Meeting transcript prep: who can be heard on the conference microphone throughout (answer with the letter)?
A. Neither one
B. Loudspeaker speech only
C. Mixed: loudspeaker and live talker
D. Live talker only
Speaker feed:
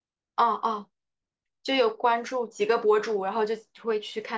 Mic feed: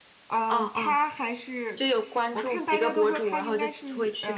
C